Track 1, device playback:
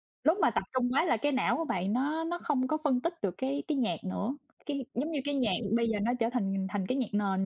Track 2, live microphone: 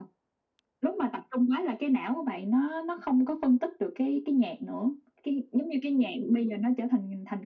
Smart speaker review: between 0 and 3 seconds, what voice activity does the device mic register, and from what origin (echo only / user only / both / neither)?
echo only